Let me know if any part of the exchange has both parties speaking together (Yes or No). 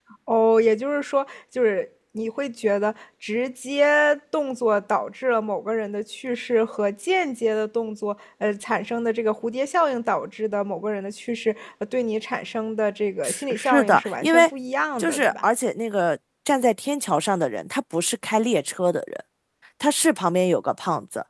Yes